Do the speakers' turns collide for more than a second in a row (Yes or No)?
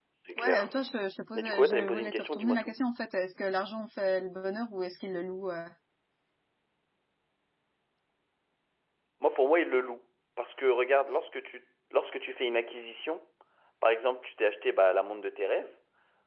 Yes